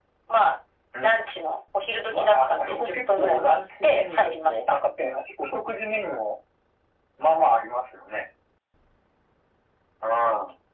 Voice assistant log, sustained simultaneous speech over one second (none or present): present